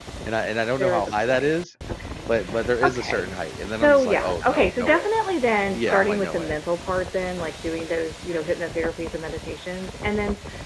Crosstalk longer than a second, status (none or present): present